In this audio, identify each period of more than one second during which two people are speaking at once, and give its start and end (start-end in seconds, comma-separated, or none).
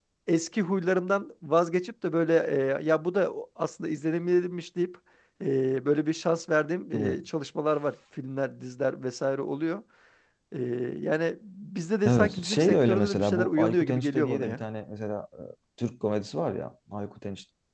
12.1-14.6